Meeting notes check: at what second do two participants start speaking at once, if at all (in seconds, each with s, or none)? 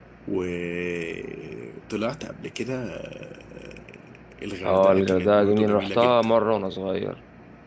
4.6 s